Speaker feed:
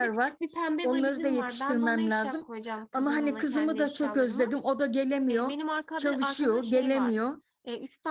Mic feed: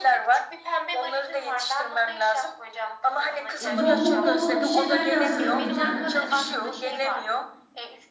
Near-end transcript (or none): e, yolluk molluk bir şeyler de hazırlayacağım.